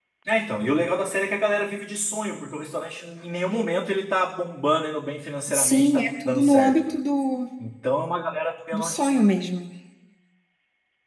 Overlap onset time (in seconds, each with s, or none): 5.5 s